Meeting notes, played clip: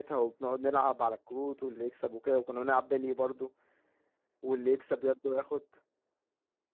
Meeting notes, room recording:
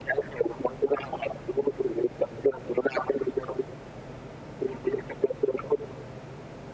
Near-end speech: none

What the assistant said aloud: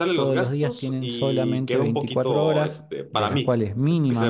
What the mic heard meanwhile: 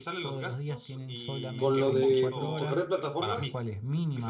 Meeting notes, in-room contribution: present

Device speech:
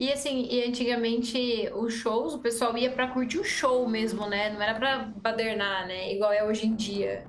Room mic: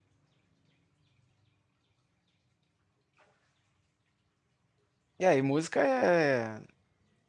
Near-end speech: present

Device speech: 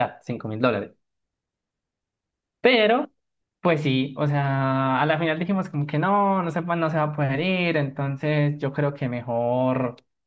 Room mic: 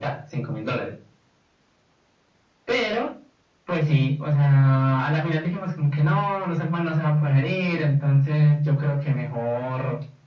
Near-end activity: none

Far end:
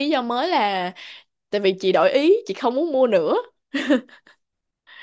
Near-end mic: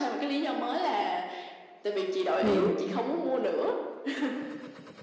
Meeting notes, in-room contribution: present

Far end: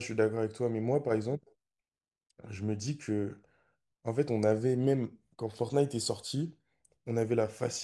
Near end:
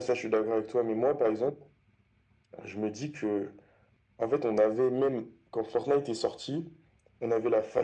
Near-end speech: none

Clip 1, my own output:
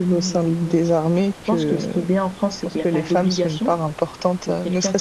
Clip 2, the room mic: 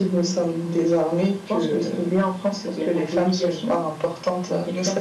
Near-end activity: none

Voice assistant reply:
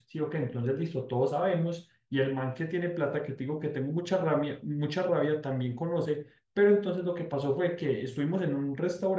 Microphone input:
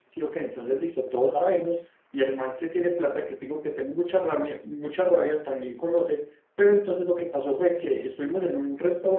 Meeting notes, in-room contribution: none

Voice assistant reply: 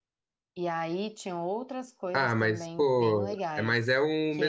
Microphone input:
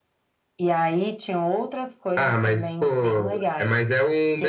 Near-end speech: none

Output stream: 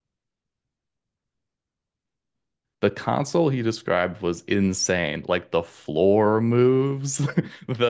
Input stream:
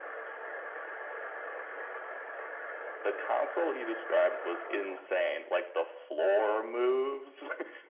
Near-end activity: none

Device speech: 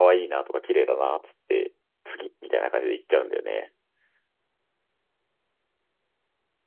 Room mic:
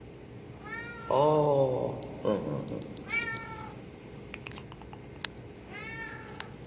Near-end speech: present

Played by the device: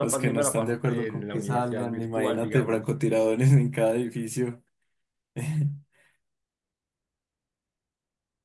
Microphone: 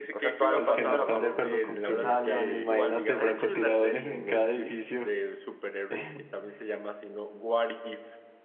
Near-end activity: present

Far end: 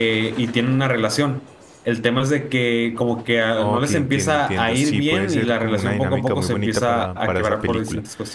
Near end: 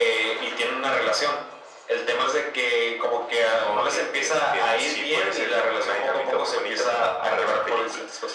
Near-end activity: none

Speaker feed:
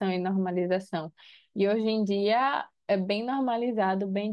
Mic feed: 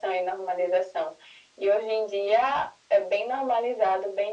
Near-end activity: none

